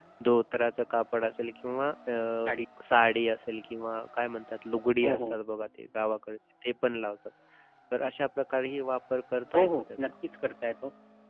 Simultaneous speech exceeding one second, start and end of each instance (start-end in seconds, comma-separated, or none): none